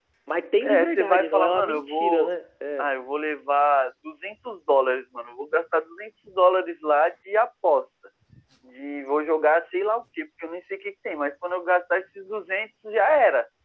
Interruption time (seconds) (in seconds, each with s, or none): 0.6 s